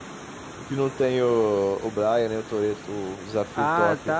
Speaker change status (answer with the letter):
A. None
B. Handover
B